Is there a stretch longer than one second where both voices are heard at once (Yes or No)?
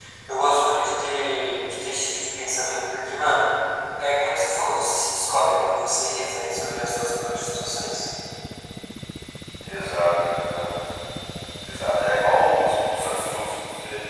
No